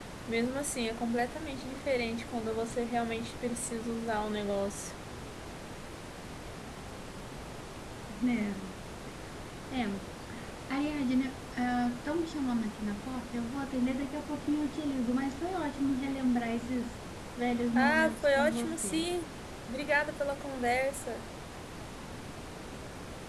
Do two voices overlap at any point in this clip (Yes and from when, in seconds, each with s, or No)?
Yes, from 17.8 s